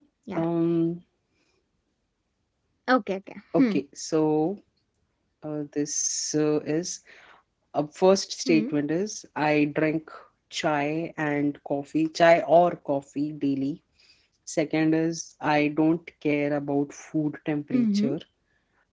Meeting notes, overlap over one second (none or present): none